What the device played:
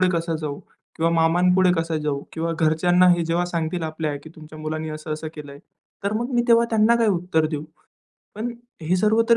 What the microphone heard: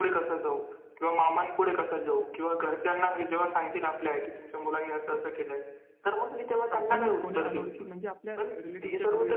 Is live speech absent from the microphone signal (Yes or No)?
No